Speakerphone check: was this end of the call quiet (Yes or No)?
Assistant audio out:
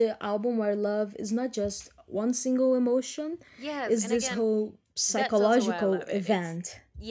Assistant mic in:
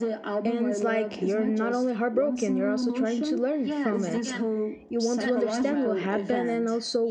No